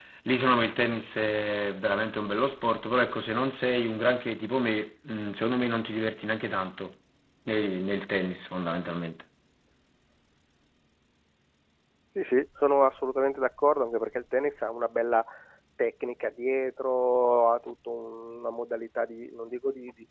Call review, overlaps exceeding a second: none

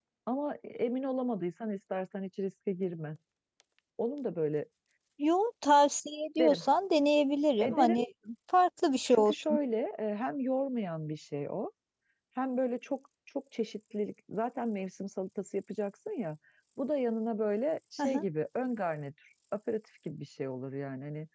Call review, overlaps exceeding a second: none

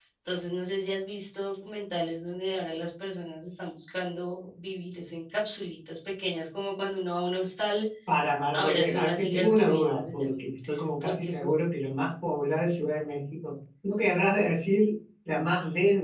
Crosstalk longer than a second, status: present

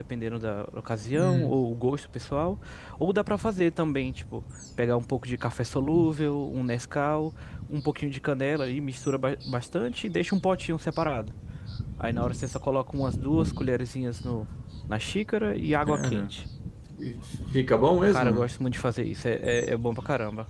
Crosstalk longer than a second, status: none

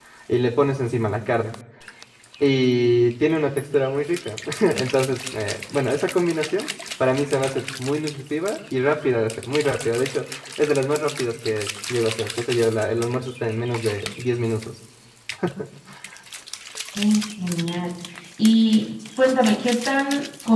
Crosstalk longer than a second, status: none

